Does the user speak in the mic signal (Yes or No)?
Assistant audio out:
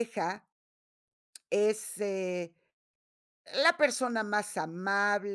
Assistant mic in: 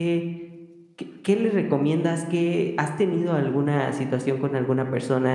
Yes